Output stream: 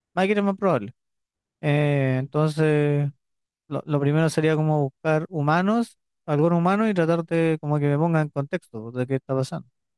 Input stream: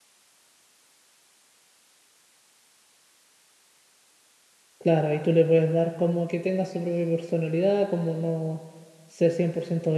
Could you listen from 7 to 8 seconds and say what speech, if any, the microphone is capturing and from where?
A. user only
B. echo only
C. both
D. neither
A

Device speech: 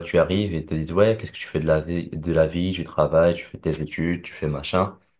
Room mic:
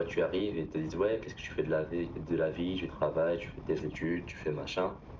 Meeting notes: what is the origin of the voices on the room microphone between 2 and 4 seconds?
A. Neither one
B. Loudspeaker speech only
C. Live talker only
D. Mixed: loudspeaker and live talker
B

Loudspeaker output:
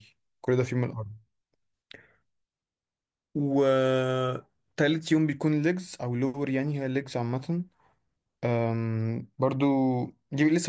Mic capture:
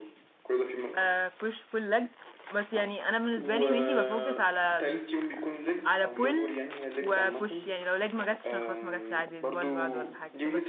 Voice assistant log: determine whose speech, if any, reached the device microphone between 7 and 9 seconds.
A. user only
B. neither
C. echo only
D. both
D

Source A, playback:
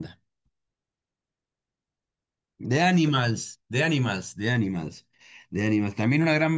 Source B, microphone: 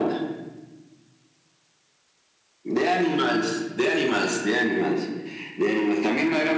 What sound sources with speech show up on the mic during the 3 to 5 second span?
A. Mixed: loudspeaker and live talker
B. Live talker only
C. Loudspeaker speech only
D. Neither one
C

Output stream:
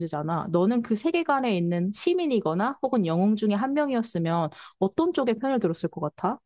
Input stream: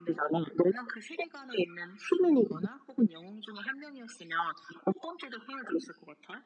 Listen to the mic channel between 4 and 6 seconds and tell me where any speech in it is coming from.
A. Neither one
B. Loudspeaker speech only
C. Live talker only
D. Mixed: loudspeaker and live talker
B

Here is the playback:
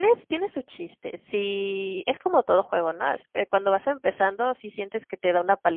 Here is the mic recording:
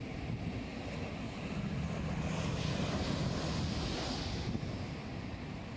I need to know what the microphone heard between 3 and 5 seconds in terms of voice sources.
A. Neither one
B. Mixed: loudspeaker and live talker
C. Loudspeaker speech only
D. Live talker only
A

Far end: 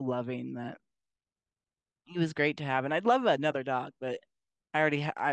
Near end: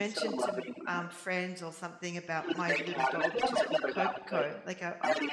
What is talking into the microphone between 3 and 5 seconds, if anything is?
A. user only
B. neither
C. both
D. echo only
C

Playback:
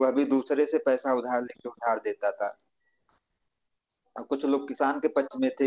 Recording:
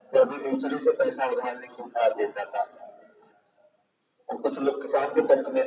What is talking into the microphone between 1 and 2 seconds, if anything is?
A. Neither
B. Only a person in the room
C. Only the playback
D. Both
C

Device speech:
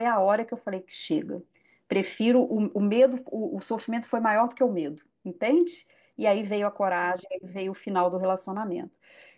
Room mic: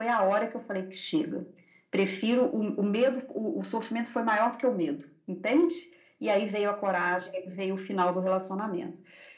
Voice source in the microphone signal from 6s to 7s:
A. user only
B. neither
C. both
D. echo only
D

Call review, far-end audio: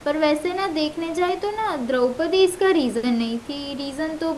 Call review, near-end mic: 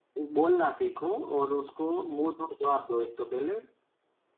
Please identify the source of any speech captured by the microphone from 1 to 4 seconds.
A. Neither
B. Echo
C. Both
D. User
D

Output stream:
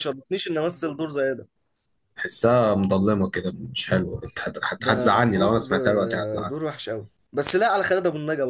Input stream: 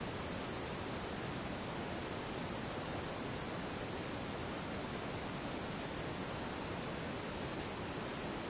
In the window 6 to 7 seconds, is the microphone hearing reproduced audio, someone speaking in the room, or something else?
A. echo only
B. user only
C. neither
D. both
C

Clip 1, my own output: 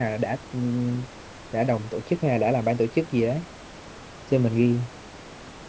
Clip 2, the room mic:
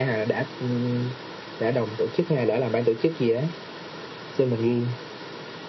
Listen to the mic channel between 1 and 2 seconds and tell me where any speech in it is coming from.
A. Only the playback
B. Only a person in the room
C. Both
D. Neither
A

